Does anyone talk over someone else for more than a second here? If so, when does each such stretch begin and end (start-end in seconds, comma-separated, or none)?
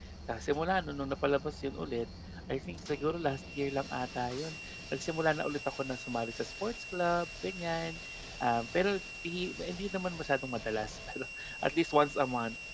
none